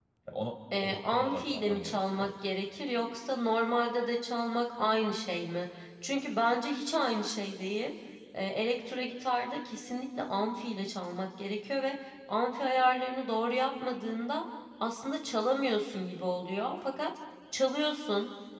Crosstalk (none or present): present